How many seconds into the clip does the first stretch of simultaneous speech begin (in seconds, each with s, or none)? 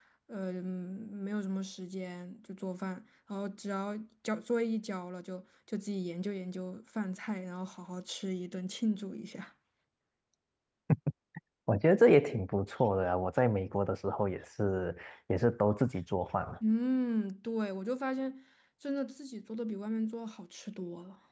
none